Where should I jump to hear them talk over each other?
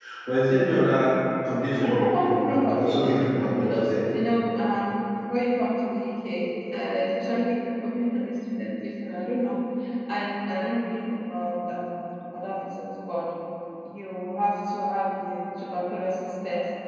2 s

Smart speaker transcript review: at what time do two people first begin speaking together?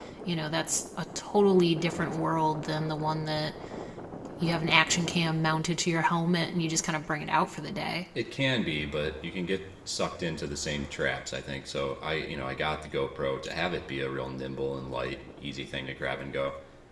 none

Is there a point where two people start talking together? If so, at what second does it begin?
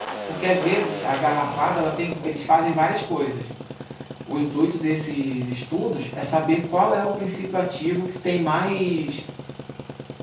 none

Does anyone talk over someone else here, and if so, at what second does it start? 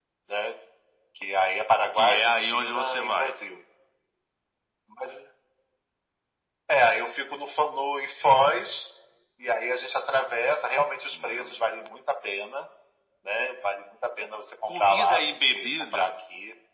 2 s

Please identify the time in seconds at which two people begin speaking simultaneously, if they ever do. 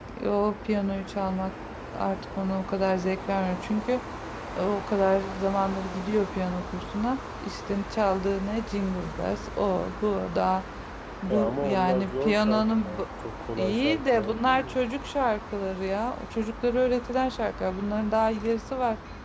11 s

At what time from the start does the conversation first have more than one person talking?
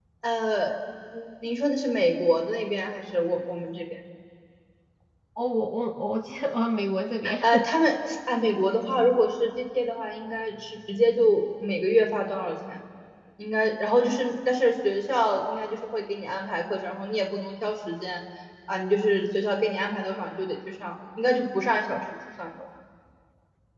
none

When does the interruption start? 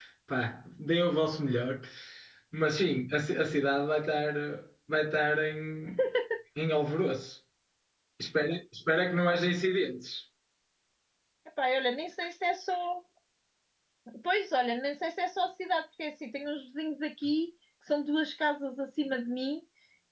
none

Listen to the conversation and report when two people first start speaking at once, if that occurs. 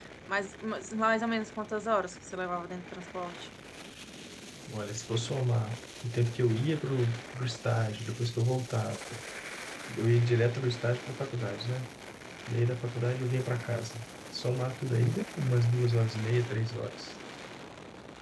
none

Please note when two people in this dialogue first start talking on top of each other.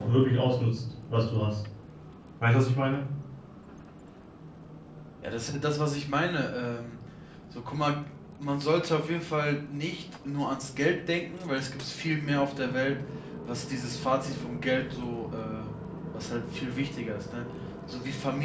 none

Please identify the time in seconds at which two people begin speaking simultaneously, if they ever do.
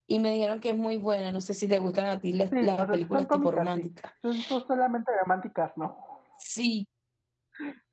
3 s

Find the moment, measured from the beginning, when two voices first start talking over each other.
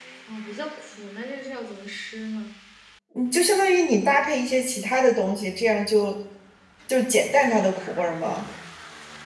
none

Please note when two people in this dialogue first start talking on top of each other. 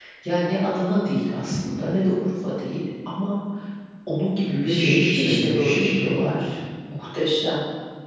5 s

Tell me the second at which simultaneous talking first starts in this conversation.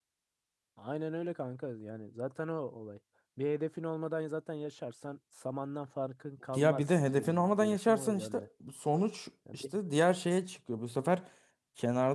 7 s

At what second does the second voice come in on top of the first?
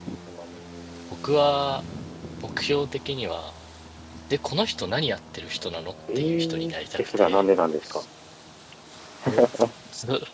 6 s

